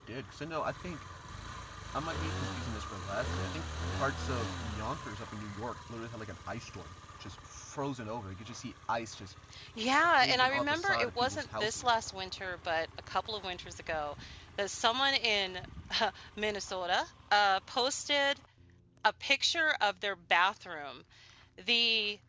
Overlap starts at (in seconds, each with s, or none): 10.2 s